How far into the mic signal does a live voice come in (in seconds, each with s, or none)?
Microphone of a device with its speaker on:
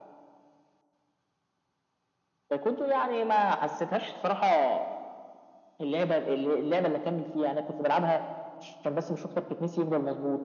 none